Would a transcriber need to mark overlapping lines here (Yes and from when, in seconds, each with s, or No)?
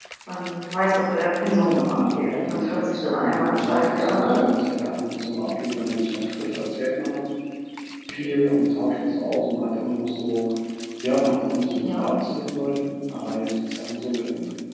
Yes, from 1.4 s